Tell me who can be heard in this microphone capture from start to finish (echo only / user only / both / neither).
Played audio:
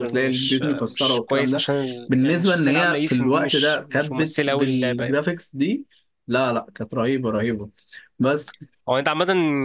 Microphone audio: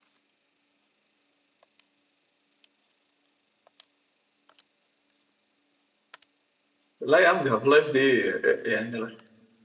user only